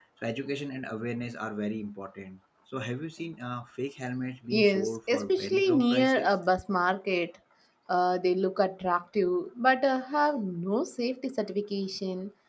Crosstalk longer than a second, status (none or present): present